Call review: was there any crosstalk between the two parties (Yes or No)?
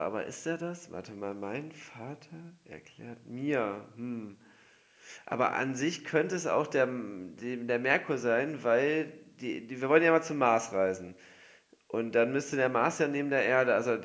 No